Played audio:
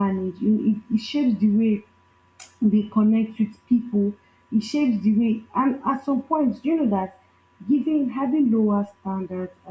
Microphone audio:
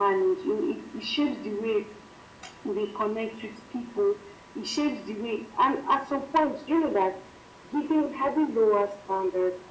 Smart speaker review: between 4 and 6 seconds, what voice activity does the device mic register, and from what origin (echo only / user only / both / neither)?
echo only